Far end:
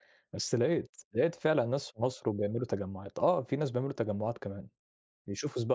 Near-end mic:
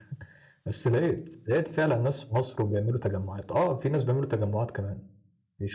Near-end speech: none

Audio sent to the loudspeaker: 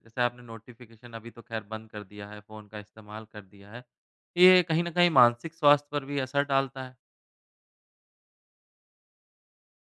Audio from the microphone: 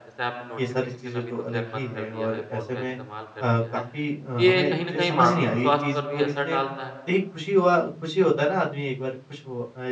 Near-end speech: present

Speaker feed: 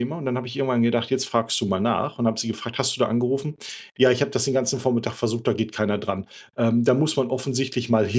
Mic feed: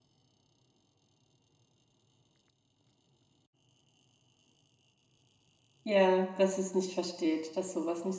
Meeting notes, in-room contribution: present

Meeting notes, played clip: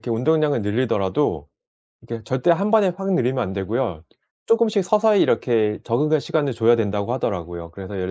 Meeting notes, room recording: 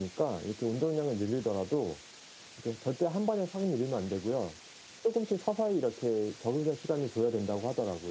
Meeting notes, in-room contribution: none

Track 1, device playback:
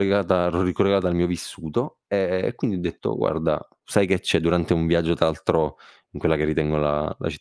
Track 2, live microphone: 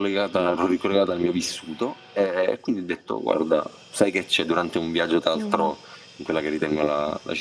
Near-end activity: present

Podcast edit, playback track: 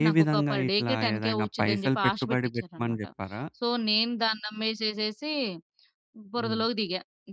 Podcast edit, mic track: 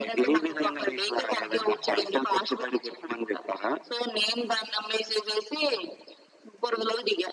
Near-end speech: none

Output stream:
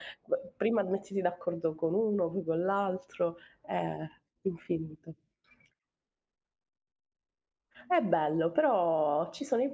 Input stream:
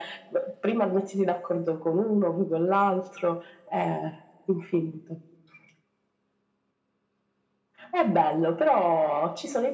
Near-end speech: none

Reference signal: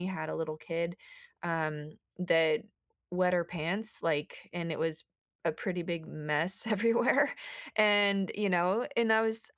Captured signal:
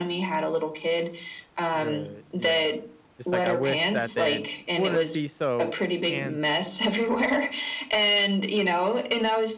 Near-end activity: present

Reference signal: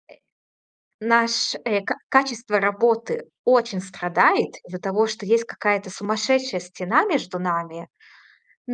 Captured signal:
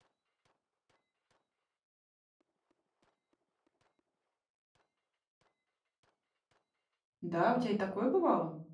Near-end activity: present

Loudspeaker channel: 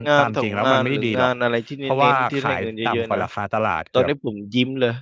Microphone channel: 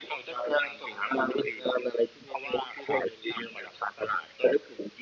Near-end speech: none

